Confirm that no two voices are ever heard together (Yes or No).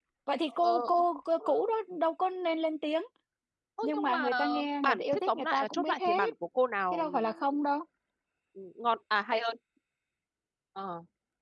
No